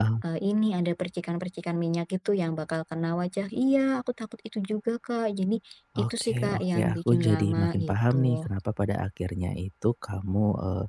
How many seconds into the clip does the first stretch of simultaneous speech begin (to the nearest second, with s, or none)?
6 s